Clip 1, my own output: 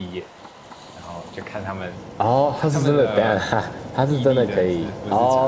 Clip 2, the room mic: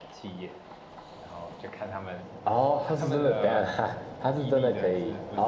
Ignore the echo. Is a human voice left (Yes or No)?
No